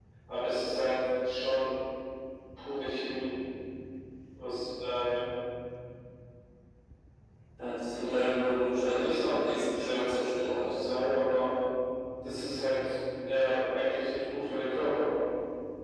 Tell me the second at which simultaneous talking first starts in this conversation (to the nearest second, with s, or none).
8 s